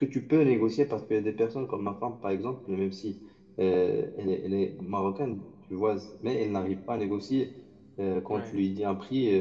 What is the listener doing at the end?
listening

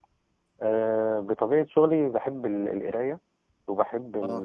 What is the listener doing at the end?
listening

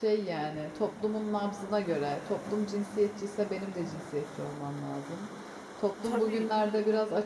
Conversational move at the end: listening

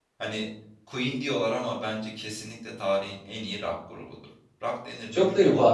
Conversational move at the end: taking over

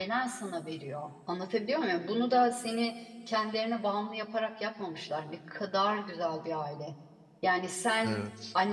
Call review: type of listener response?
listening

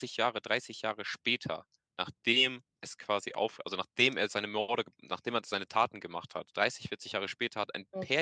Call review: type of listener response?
listening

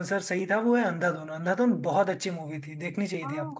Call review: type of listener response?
taking over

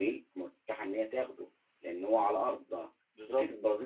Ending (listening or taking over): listening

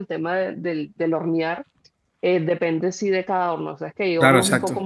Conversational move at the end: taking over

